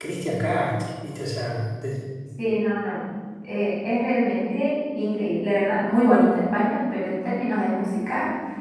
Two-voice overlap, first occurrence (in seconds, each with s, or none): none